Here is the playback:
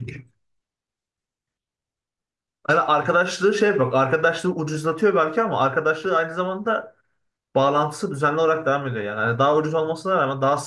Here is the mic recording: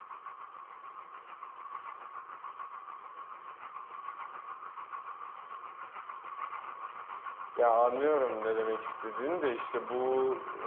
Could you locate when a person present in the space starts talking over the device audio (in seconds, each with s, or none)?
7.6 s